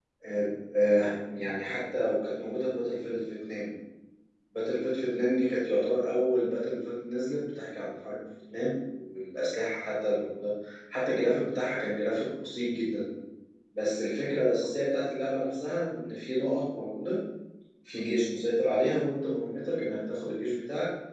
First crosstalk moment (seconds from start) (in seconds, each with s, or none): none